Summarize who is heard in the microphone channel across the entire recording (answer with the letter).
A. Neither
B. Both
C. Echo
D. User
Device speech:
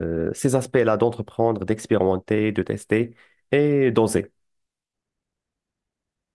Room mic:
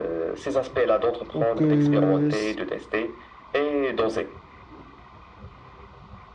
B